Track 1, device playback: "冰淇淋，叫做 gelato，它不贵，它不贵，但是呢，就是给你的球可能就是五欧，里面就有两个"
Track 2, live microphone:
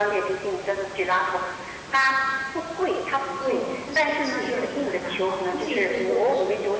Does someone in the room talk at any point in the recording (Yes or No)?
Yes